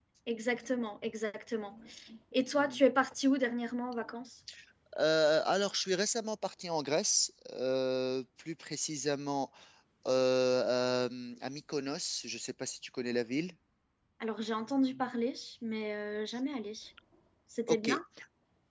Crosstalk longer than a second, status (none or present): none